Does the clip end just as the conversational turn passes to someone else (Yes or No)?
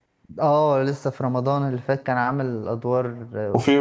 Yes